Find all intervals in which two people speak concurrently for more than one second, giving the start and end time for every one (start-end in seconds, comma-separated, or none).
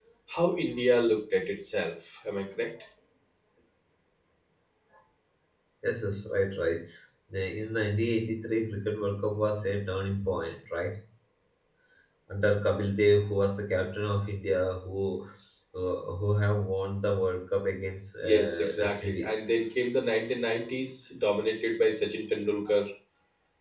18.2-19.4